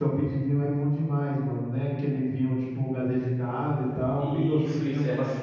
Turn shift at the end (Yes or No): Yes